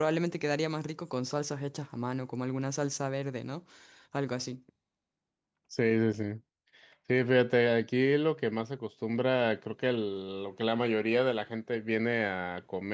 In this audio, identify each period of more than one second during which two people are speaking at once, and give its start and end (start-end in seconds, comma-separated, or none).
none